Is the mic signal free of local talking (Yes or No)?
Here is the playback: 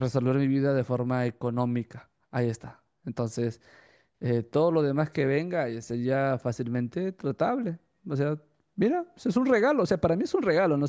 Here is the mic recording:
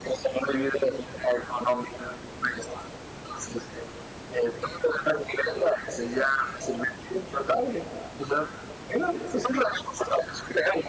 Yes